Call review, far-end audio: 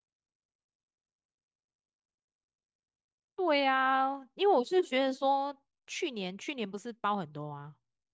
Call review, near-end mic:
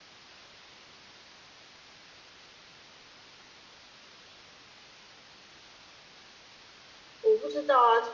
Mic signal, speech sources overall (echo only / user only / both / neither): user only